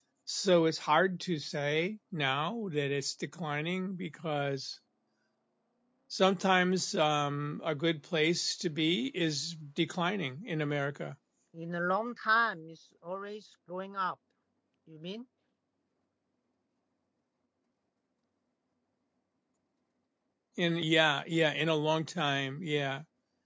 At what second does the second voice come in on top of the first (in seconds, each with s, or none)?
none